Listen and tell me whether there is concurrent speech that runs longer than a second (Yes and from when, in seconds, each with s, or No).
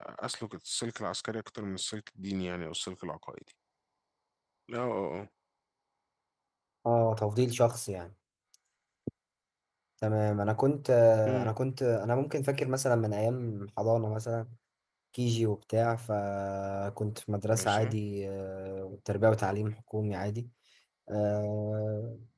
No